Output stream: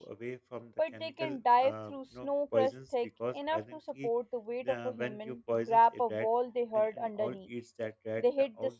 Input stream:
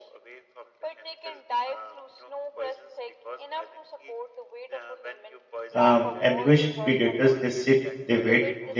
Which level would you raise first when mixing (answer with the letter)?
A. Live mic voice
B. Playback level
B